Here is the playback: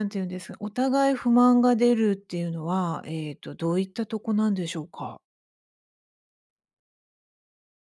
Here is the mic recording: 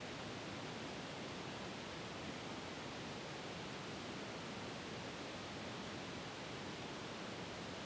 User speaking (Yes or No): No